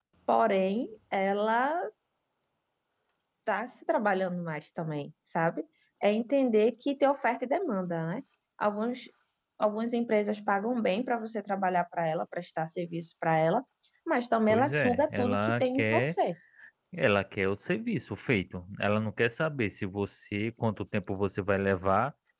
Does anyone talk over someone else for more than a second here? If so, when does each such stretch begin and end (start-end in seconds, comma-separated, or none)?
14.5-16.1